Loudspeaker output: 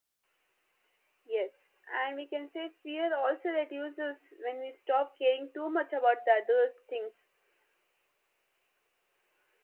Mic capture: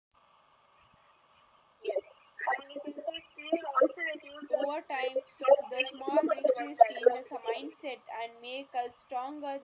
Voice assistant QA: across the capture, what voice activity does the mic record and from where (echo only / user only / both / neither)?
both